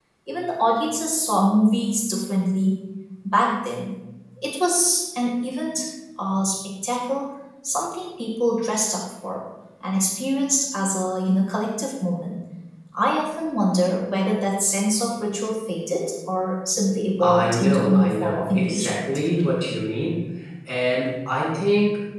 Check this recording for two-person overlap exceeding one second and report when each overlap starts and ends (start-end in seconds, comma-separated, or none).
17.2-19.2